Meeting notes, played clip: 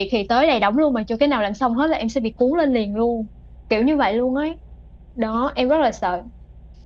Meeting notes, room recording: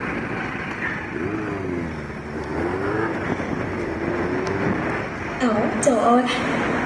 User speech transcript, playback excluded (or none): Đó, trời ơi